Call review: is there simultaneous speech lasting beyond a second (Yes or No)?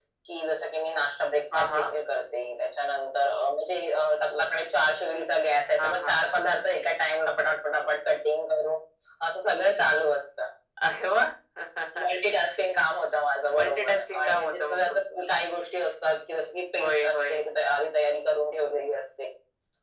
Yes